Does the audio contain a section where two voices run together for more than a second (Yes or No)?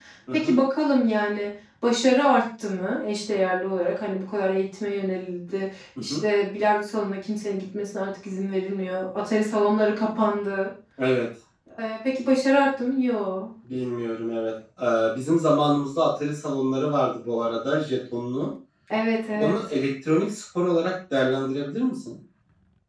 No